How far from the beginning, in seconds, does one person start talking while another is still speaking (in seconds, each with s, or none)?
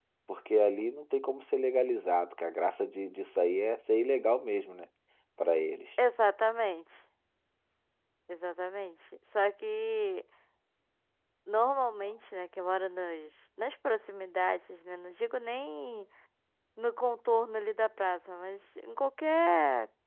none